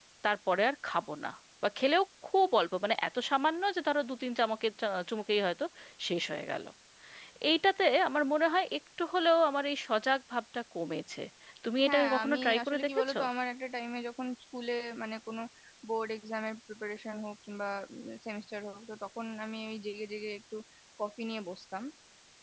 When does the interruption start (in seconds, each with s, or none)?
11.8 s